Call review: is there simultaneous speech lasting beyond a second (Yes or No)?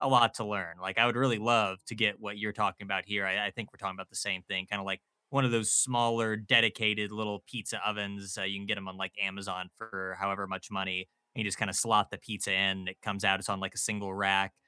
No